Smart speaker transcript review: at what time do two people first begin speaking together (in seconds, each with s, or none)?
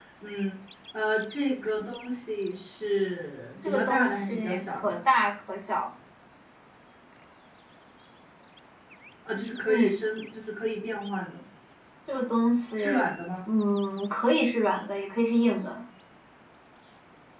3.6 s